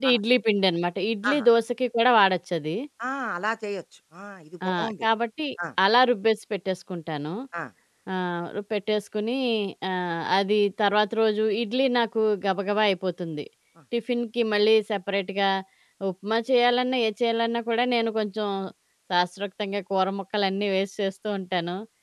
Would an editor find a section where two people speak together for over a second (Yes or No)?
No